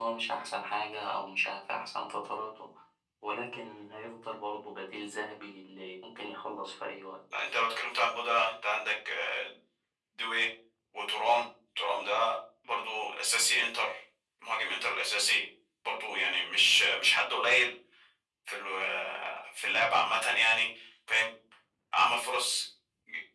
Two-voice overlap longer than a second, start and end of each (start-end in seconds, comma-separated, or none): none